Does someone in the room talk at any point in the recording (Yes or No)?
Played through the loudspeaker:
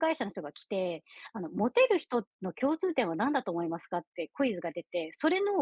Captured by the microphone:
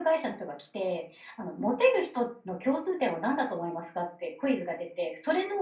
No